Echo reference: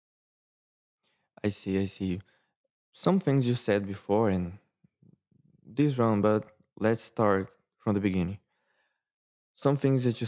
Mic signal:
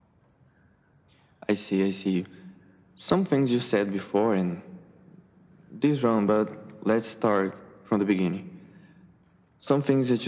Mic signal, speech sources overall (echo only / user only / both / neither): echo only